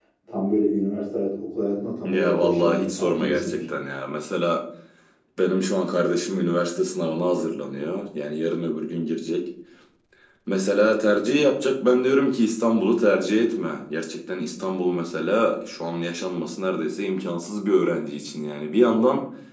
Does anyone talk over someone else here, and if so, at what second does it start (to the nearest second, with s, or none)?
2 s